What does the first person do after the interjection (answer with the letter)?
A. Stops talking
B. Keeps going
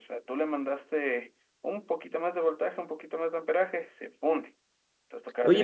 A